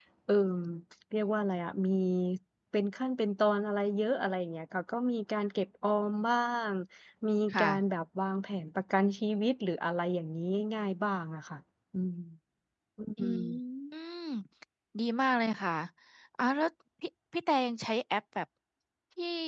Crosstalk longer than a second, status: none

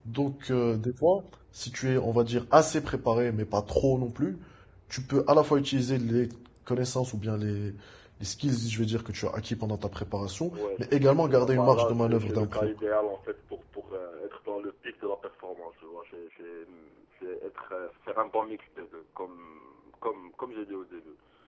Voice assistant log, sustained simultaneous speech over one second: present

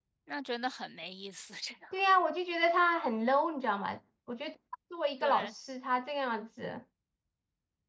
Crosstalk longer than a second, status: none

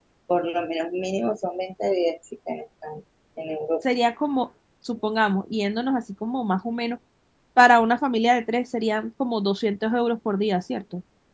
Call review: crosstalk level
none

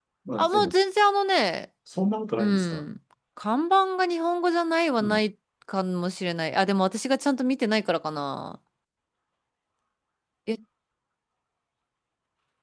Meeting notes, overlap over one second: none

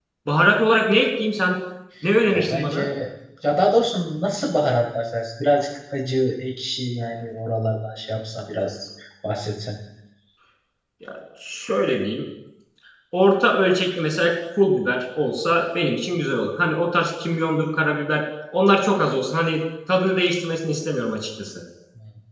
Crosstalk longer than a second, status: none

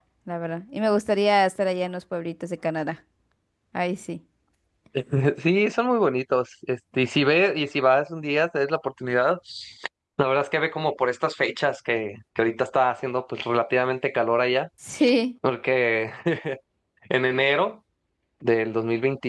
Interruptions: none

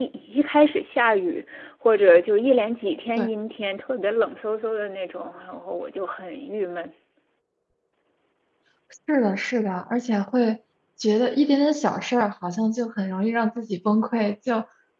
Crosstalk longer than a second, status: none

